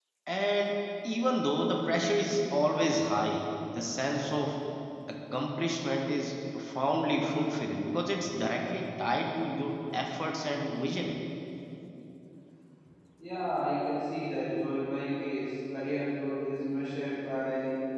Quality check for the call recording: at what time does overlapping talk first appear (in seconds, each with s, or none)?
none